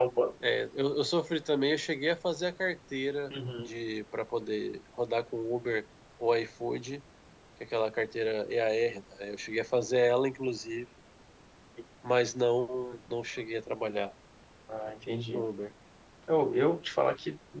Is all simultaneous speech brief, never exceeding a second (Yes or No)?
Yes